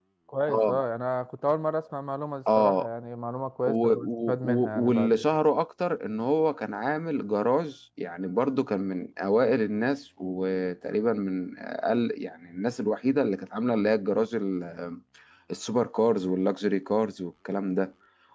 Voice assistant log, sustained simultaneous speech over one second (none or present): present